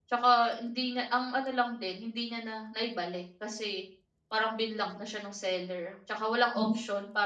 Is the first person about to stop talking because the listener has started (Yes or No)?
No